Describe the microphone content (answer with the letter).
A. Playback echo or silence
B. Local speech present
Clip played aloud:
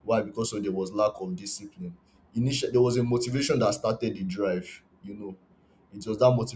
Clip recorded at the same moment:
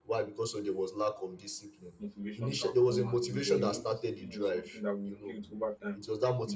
B